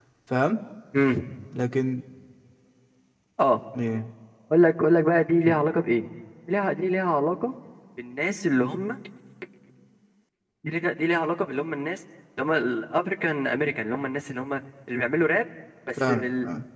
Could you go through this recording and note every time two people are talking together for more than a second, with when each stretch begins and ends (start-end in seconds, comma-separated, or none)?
none